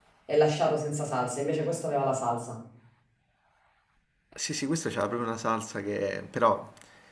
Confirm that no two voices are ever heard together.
Yes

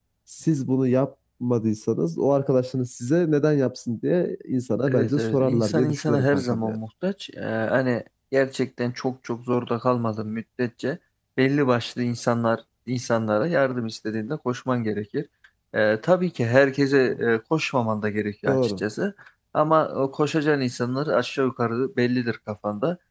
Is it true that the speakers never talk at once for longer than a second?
No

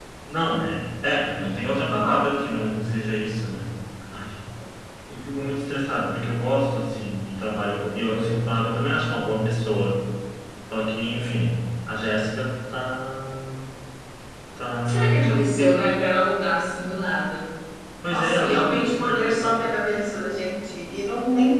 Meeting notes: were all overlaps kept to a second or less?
No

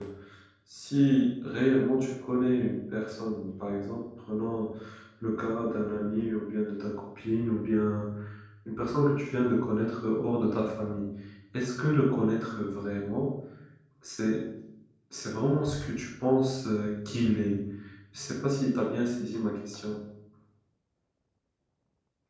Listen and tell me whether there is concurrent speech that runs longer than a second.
No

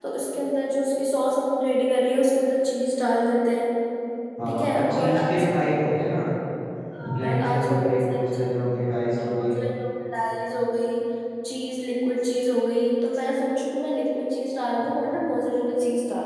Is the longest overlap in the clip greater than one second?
Yes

